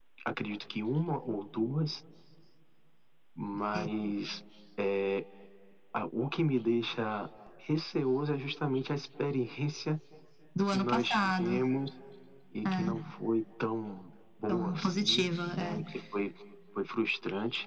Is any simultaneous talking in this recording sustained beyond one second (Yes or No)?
Yes